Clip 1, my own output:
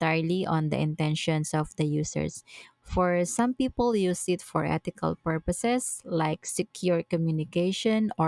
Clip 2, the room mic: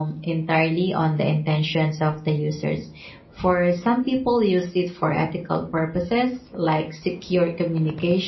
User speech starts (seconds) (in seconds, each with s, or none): none